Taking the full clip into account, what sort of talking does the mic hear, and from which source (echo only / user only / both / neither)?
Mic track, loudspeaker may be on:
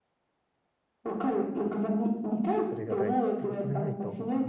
both